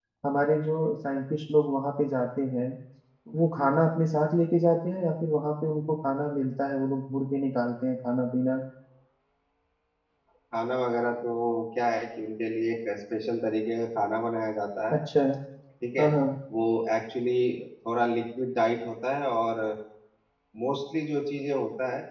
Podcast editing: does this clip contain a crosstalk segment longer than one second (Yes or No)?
No